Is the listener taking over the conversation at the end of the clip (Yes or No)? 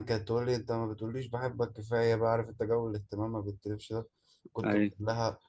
No